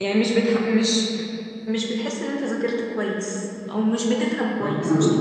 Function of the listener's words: taking over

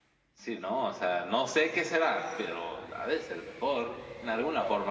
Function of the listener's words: taking over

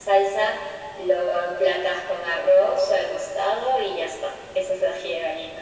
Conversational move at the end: taking over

